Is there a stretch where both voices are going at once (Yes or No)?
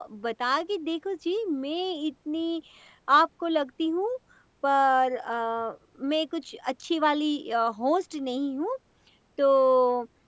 No